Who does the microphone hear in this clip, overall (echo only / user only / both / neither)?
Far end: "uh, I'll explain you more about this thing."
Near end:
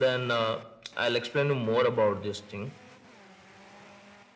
echo only